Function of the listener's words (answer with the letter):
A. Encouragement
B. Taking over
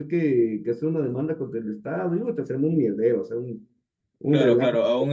B